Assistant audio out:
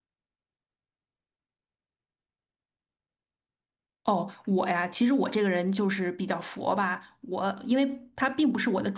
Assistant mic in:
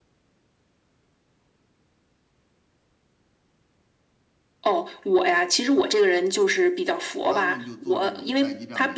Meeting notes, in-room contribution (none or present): present